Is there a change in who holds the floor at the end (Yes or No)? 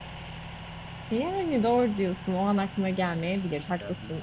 No